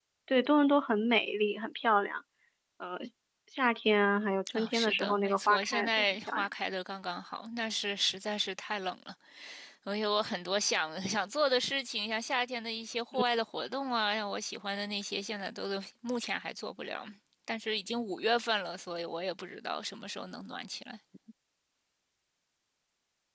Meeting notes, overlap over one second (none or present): present